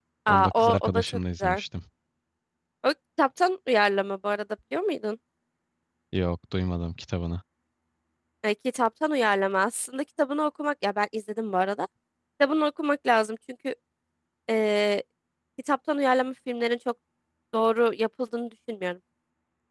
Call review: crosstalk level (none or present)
present